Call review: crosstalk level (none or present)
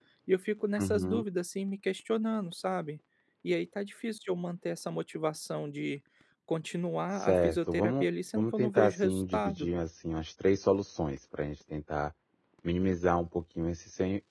present